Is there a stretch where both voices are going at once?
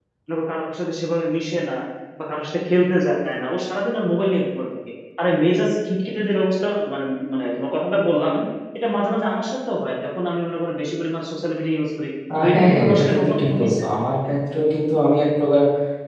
Yes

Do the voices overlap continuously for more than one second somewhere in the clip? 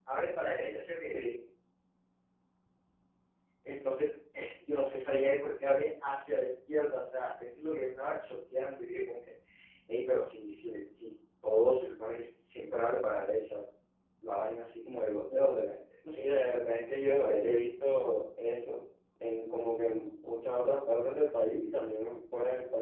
No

